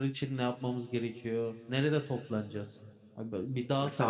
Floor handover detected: Yes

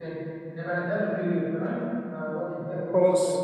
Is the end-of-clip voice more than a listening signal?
No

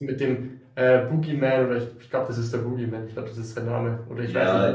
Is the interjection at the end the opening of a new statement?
Yes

